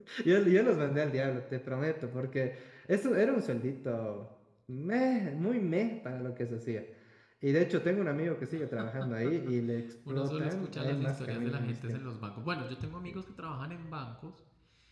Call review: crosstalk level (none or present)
present